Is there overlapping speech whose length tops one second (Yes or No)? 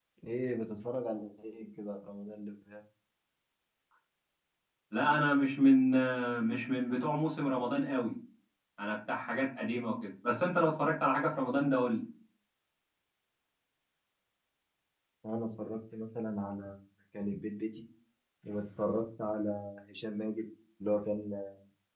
No